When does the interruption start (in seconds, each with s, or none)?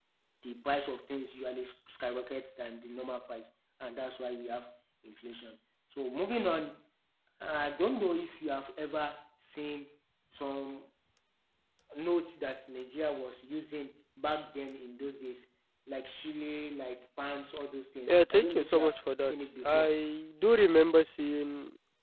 18.1 s